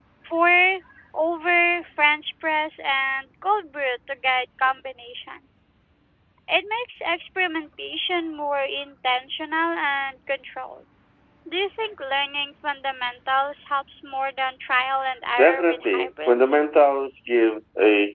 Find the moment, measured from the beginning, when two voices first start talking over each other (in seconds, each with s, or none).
15.4 s